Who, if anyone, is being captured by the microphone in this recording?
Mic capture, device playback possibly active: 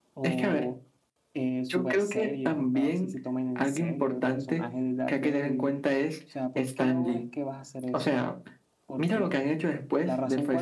both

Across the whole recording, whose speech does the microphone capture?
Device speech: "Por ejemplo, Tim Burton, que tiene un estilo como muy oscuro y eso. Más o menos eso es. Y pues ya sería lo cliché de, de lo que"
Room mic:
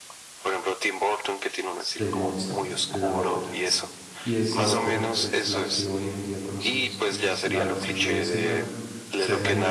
both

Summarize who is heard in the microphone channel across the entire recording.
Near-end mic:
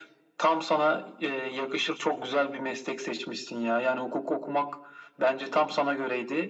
echo only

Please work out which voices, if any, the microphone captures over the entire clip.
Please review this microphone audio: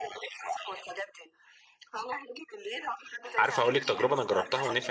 both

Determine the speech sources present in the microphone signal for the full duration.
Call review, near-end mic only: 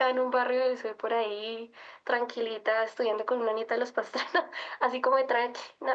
echo only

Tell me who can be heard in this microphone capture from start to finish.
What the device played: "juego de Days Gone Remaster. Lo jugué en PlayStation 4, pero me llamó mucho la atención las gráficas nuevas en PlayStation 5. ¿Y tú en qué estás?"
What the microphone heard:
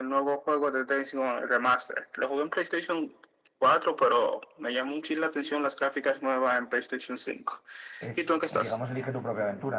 both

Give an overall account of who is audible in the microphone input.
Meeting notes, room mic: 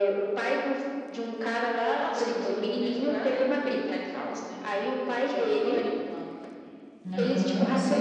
both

